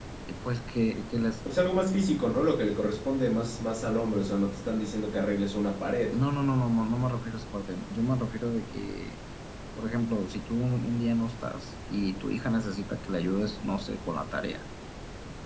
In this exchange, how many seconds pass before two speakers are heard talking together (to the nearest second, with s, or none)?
none